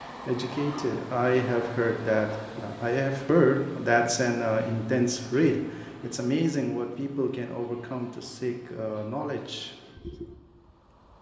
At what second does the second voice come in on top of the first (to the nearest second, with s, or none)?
none